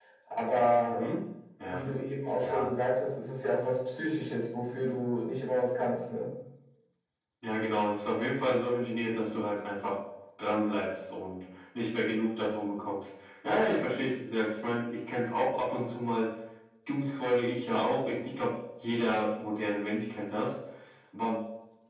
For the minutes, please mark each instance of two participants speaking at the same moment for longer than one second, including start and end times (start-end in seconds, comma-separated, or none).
none